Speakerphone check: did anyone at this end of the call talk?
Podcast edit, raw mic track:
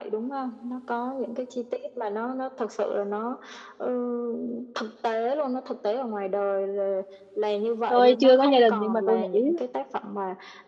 Yes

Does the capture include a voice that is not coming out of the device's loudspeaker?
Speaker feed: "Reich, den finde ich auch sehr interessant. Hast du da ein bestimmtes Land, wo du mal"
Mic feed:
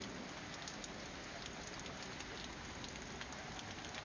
No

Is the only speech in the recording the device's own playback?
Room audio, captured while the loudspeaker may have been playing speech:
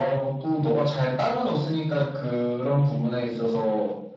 Yes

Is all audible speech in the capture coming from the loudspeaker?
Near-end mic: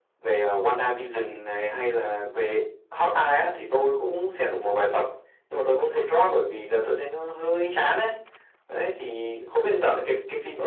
Yes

